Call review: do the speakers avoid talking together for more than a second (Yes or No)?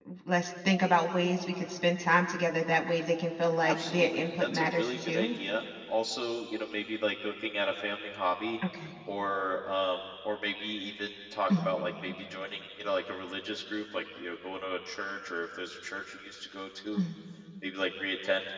No